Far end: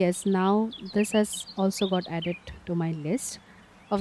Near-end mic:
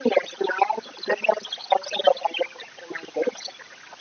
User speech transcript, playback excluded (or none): none